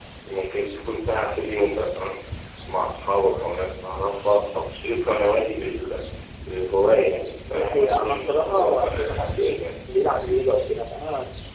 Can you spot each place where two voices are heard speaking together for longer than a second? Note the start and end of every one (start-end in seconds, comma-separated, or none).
7.5-9.4